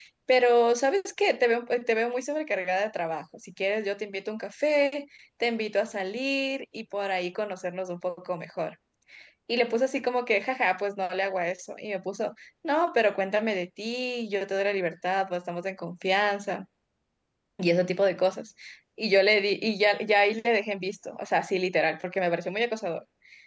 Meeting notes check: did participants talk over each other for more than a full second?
No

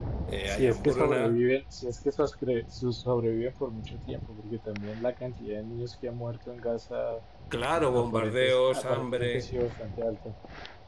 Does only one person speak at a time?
No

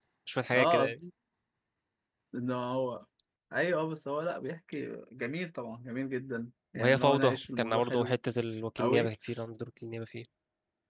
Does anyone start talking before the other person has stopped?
Yes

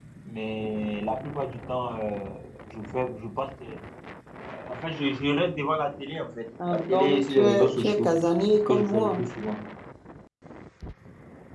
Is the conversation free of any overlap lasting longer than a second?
No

